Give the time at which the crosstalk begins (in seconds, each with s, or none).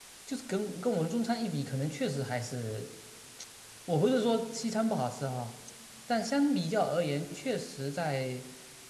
none